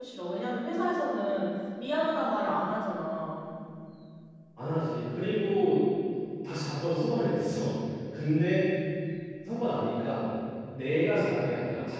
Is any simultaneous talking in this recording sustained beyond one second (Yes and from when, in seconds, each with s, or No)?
No